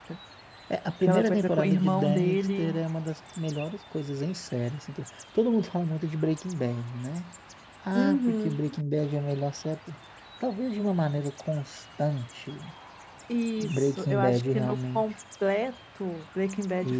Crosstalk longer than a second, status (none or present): present